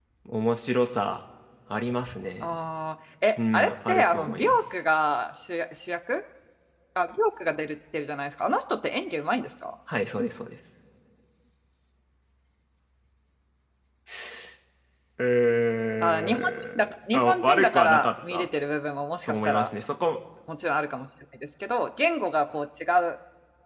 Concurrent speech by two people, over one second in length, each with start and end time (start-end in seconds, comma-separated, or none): 3.4-4.7, 16.0-18.4